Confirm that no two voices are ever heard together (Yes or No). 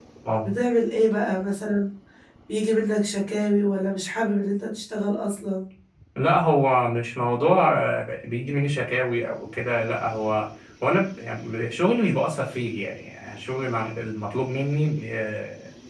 Yes